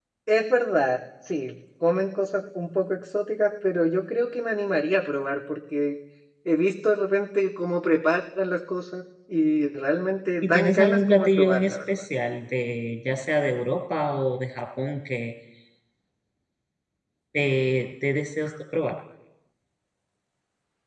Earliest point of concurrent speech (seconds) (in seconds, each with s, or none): 10.4 s